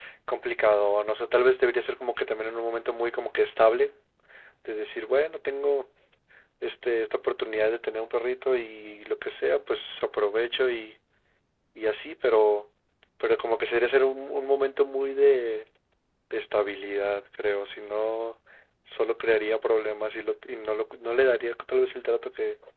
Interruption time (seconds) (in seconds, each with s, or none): none